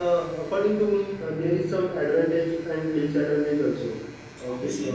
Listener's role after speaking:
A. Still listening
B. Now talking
B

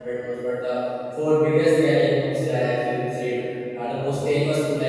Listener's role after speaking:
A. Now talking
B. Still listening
B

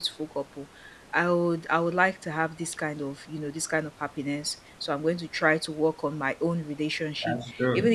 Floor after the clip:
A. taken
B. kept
B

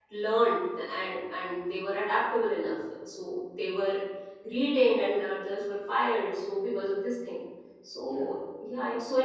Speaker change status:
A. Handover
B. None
B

